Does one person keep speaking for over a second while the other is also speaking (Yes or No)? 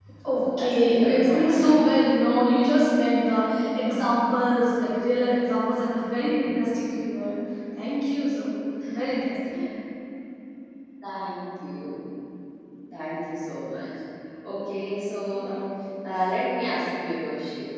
Yes